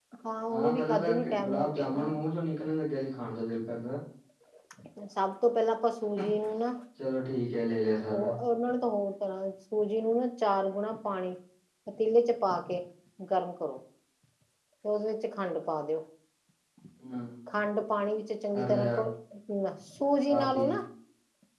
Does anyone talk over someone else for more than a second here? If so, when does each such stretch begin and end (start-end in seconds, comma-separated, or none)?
0.5-2.1